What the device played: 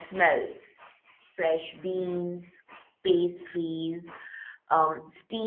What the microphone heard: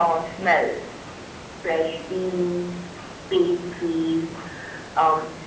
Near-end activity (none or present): none